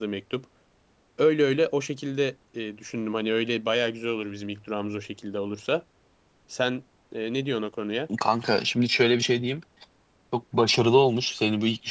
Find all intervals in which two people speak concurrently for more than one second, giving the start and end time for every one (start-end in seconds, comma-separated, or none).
none